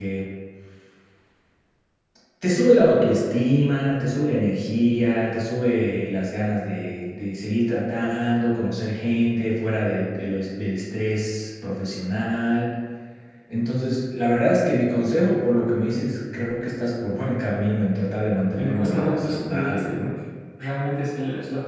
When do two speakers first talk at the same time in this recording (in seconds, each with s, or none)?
18.6 s